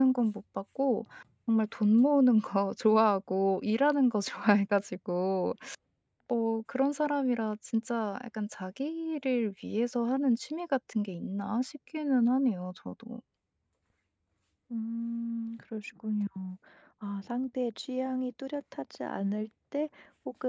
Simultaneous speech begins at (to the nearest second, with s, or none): none